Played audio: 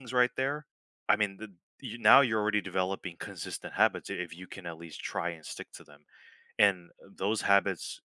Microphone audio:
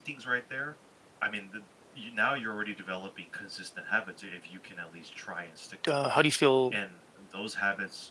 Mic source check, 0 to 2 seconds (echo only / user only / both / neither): echo only